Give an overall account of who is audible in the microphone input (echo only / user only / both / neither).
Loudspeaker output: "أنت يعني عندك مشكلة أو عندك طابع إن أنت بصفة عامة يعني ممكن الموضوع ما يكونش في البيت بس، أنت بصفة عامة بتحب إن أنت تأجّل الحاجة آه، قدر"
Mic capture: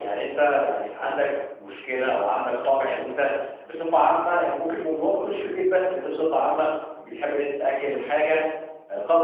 echo only